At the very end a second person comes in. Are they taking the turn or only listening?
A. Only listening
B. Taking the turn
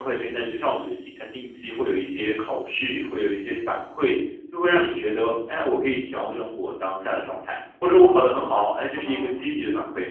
A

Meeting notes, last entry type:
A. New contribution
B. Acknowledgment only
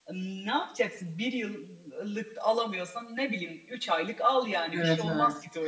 A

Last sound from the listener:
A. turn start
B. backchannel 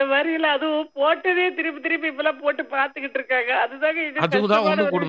A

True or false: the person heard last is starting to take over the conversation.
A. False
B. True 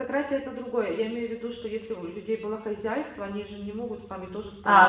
B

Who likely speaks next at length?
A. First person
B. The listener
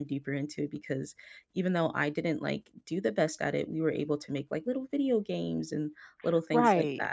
B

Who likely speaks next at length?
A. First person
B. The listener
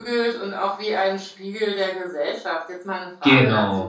A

